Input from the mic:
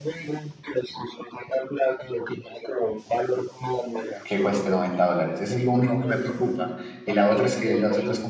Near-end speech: present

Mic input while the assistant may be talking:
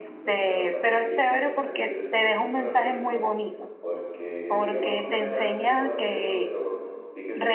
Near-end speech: present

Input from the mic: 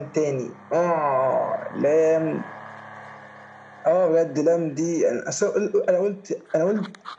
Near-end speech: none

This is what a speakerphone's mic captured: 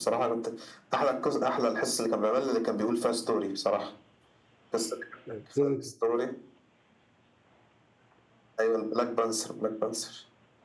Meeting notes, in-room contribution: present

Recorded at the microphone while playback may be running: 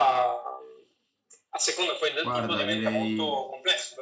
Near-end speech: present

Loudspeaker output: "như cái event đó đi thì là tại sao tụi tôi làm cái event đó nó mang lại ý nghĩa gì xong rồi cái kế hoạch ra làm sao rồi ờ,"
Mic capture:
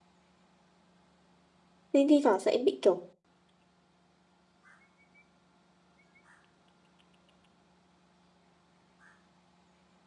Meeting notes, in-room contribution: present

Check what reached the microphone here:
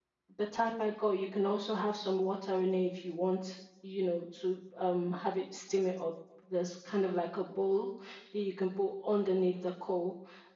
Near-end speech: present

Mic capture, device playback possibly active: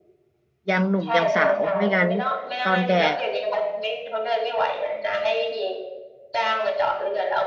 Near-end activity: present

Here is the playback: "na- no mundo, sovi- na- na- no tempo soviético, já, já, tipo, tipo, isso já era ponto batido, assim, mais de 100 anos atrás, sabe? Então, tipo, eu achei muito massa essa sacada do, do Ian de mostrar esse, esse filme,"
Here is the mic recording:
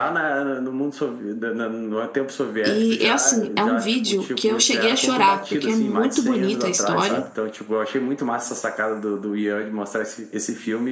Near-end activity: present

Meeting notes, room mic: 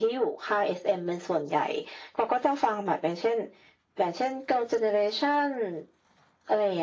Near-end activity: none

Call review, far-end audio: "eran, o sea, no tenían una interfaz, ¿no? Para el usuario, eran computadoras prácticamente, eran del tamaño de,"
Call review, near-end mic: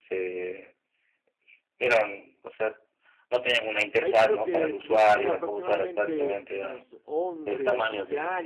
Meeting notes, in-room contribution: present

